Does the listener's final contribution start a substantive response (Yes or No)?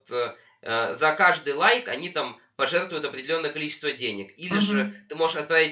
No